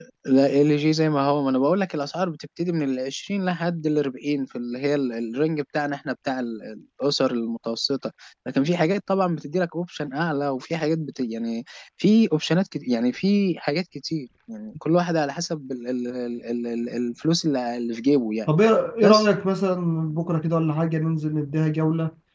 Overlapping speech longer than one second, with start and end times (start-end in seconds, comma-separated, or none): none